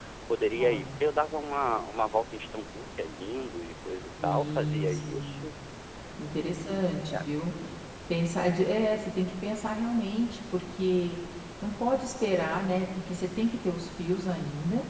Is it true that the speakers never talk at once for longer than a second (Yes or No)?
No